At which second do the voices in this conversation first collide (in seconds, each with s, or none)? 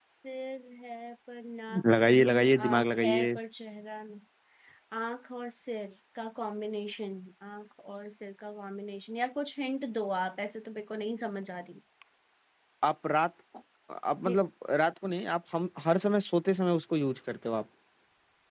1.7 s